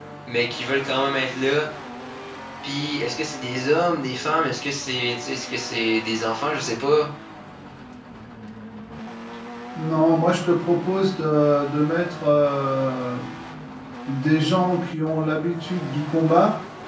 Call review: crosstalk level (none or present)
none